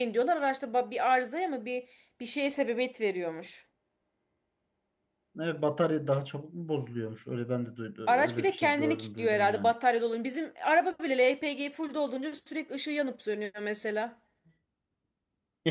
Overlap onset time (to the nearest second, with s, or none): 8 s